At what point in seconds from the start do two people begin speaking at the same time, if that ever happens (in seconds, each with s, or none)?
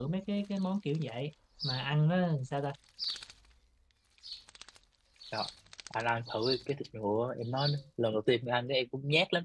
none